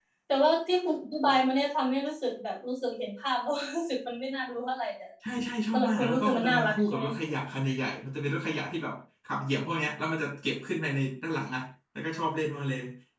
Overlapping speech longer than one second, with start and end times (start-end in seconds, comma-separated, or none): 5.7-7.0